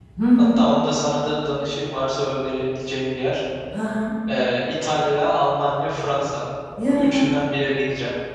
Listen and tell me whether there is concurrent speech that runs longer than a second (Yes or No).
No